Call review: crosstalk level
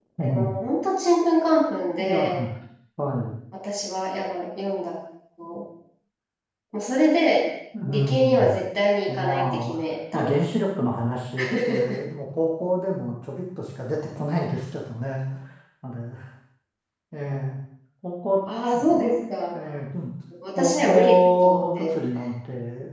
present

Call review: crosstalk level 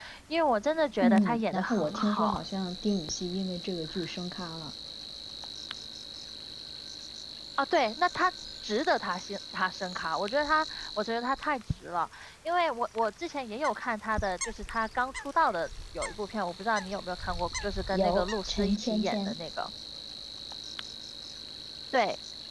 present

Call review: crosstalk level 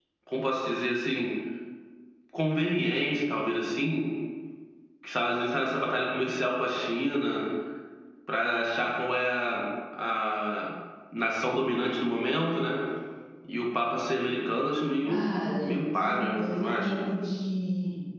present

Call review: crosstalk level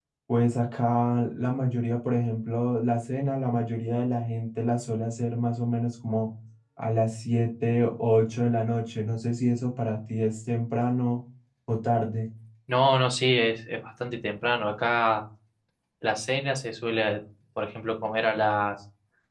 none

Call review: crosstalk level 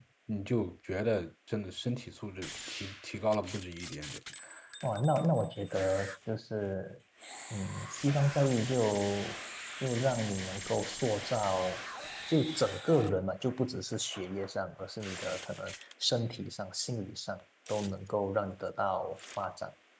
none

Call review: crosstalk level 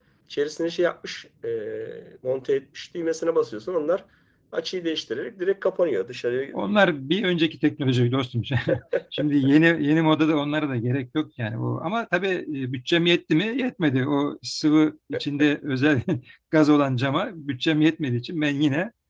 none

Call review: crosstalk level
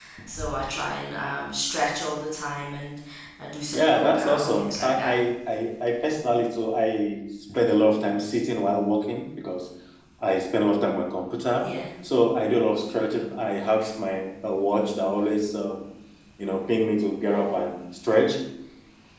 present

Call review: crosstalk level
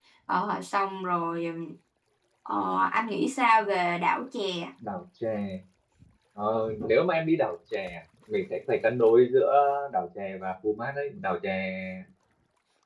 none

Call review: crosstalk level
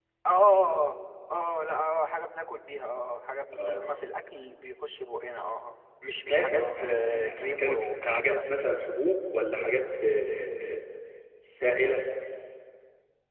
present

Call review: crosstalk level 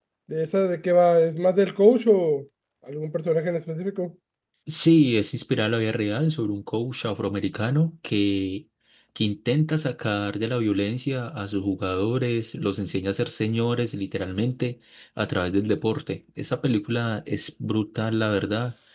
none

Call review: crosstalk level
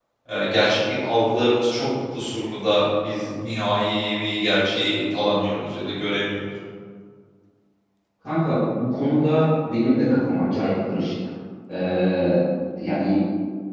none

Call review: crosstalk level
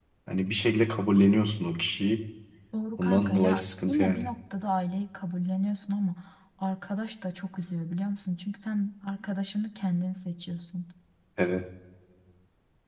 present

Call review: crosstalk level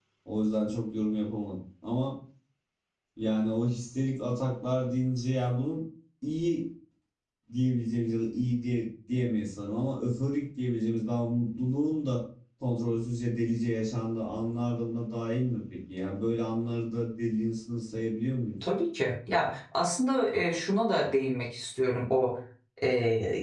none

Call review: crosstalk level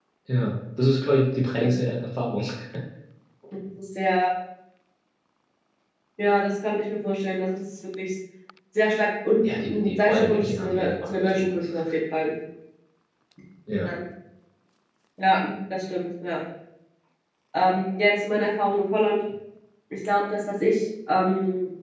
present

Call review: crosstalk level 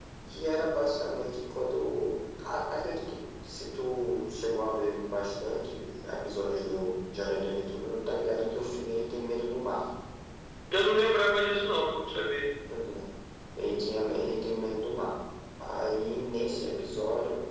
none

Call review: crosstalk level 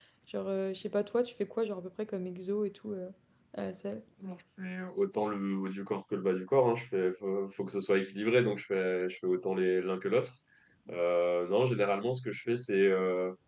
none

